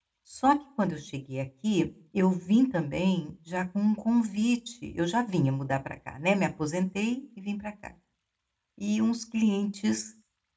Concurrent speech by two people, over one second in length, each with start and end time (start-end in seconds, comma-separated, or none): none